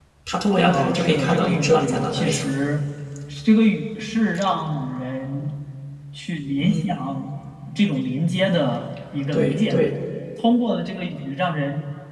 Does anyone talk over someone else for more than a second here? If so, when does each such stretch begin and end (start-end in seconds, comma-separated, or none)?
0.7-2.5